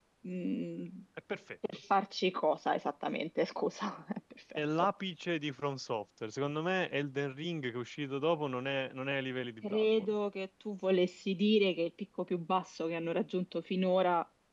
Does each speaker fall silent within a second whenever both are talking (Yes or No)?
Yes